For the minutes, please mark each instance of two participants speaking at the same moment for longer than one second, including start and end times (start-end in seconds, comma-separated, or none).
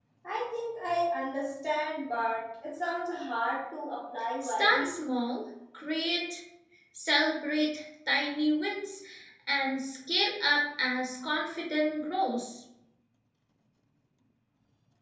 none